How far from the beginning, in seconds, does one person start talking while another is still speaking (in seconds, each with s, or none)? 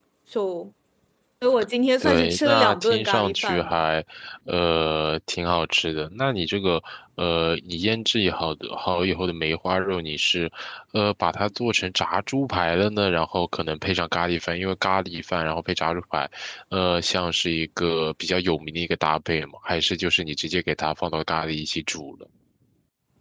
2.0 s